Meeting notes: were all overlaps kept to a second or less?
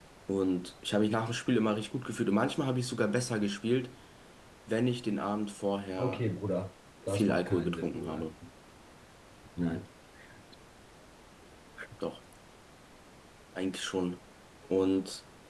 No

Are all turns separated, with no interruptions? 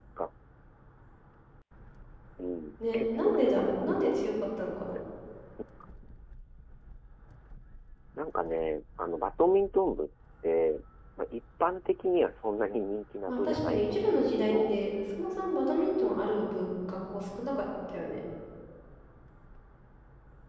No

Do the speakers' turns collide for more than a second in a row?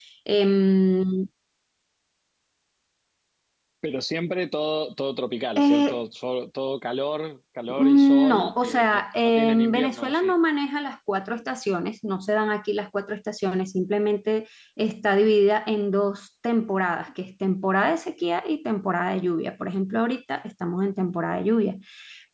Yes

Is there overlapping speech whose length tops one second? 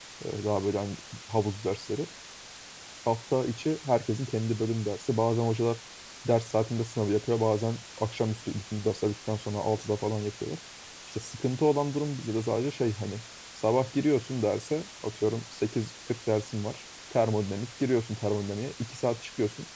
No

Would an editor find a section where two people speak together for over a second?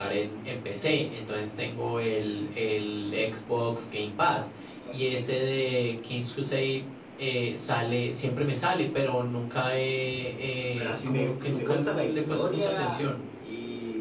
Yes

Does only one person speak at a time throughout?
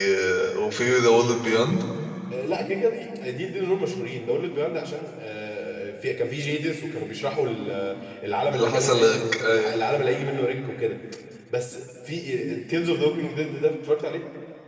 No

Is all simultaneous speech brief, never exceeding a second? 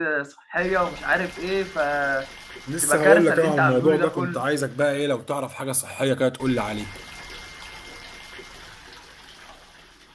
No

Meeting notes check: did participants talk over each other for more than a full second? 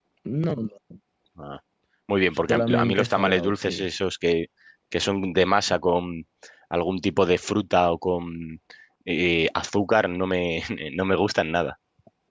Yes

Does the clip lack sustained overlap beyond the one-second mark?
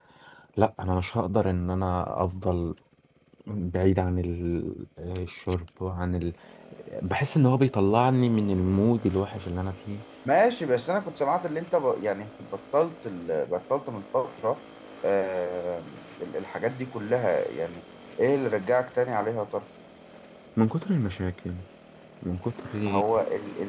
Yes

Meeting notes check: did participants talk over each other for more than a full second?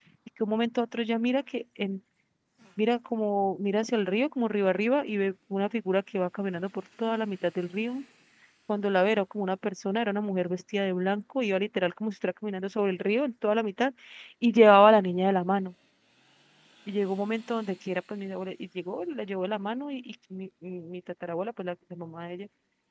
No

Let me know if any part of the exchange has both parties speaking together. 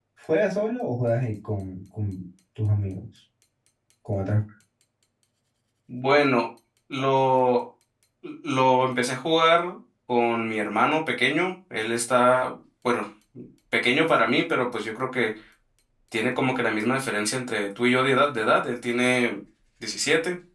No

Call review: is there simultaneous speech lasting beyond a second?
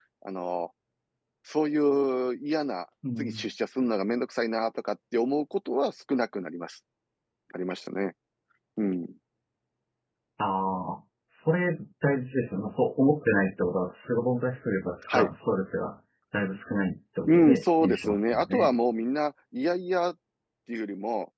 Yes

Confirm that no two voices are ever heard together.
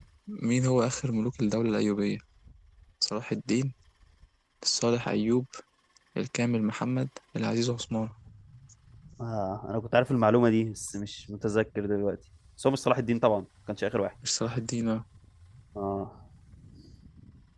Yes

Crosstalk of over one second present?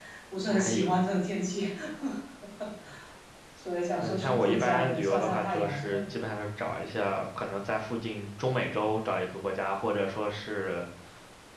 Yes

